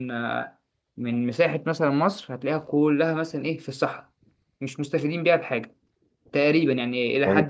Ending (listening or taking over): taking over